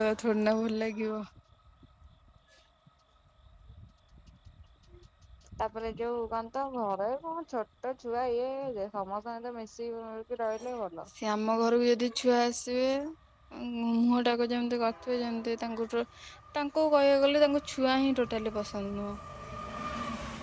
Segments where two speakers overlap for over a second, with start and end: none

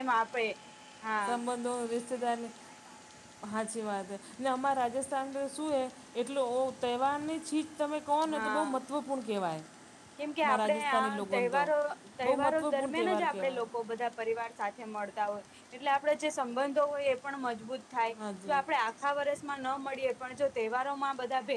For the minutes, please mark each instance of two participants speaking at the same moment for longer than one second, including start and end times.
10.4-11.6, 12.2-13.7

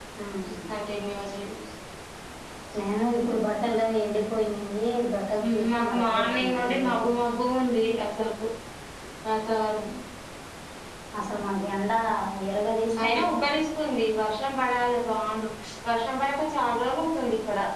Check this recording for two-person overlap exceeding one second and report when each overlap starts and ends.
5.7-7.1

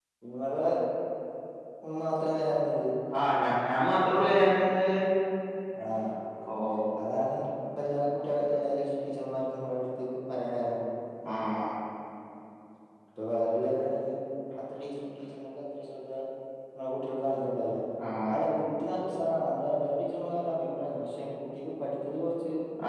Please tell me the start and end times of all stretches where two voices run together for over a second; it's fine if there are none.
none

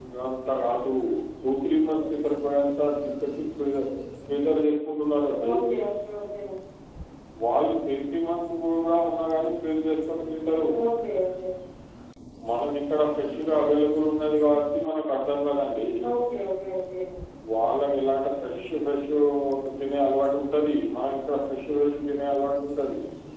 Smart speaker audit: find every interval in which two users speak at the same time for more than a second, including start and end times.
none

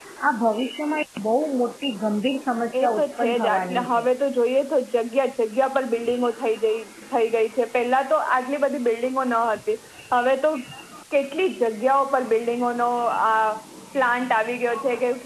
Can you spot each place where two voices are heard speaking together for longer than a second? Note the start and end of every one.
2.8-4.0

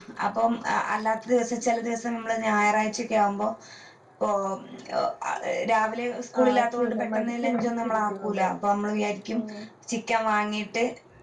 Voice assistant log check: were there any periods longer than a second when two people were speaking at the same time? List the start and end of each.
6.4-8.5

